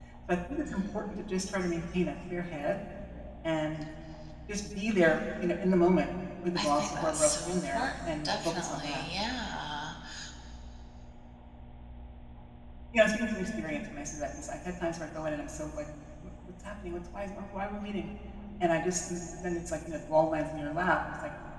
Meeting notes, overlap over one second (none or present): present